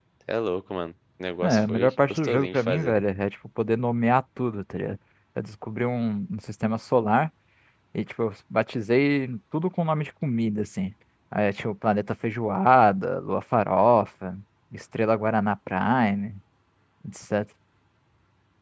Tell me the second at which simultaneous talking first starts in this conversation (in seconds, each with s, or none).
1.4 s